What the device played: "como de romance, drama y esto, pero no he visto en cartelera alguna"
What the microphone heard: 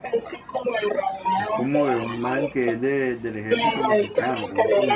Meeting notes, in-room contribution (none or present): present